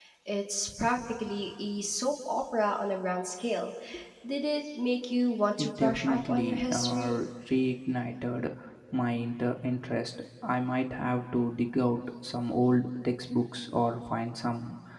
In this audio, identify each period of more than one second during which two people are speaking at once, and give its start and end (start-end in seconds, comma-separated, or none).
5.6-7.2